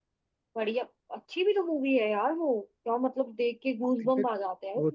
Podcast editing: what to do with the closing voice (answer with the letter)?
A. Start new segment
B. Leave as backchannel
A